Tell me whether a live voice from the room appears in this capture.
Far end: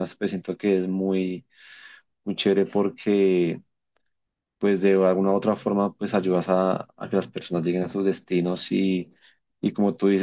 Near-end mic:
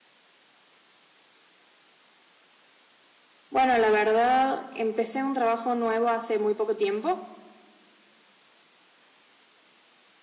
Yes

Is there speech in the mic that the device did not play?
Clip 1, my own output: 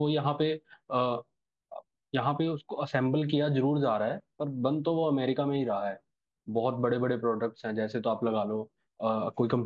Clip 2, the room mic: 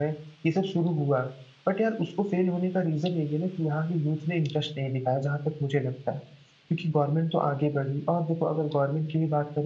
Yes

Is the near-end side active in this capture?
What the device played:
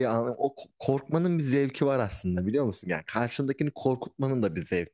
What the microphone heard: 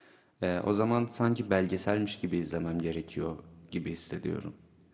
Yes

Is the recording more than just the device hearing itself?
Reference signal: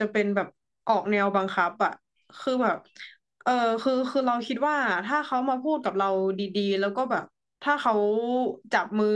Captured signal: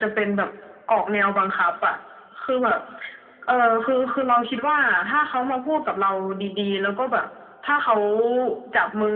No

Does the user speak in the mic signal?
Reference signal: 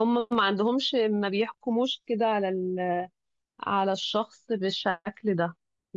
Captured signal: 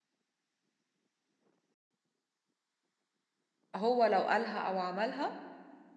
Yes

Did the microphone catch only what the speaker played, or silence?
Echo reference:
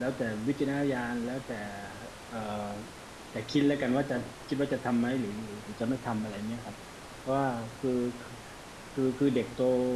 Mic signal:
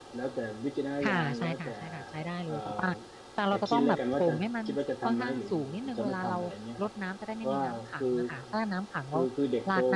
No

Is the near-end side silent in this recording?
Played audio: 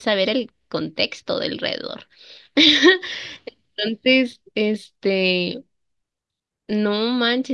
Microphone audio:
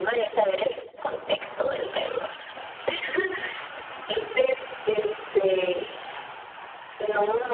Yes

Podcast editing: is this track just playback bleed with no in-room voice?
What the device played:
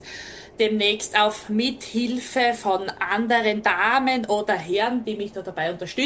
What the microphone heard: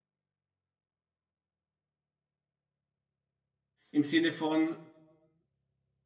No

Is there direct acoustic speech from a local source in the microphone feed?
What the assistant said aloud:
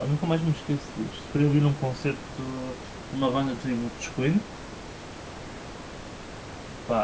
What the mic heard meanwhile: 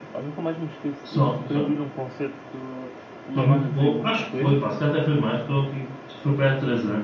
Yes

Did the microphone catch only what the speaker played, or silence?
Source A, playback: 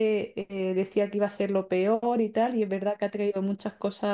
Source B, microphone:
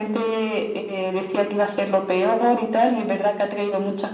Yes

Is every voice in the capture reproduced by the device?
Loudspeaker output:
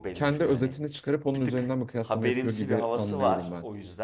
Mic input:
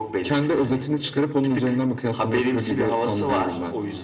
Yes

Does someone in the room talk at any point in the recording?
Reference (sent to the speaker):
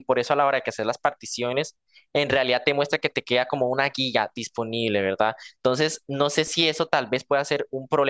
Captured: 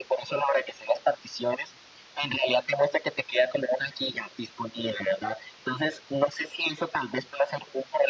No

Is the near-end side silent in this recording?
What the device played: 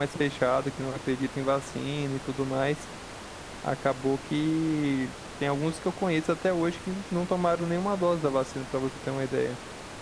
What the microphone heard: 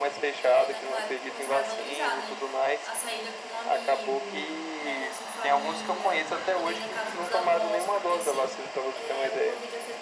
No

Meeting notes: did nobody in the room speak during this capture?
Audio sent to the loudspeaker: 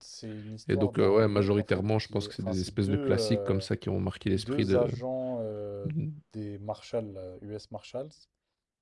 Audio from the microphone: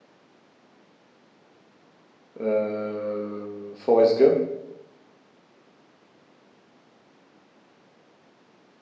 No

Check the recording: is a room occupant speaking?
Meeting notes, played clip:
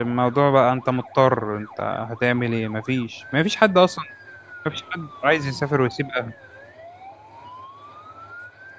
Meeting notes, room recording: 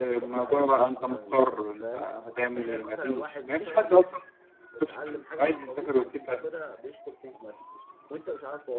Yes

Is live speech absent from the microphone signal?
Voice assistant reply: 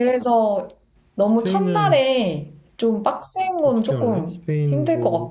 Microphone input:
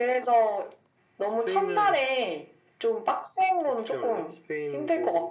Yes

